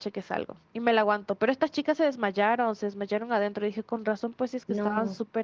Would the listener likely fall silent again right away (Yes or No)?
No